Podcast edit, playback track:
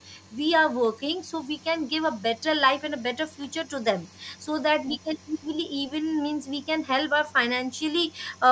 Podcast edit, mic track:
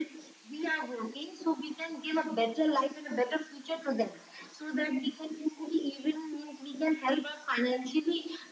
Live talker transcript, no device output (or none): none